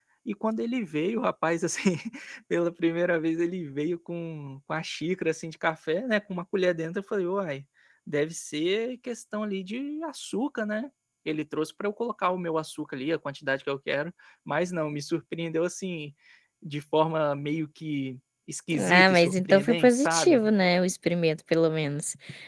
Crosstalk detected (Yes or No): Yes